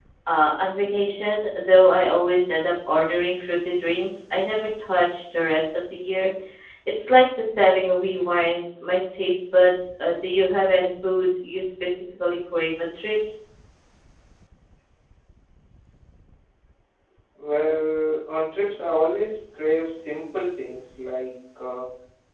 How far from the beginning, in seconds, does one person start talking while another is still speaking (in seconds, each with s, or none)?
none